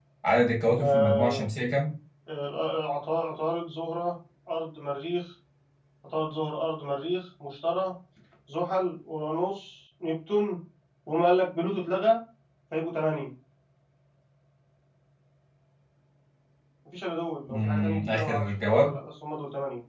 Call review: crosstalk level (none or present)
present